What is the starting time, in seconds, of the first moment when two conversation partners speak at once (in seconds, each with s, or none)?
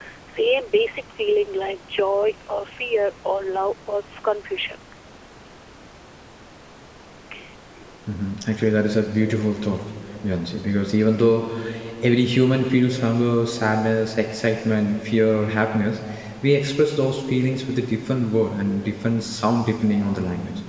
none